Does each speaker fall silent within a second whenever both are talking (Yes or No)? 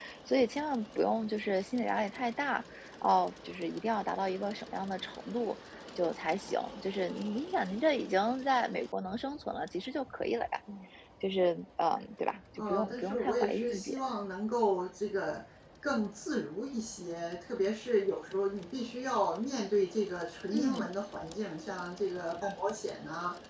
No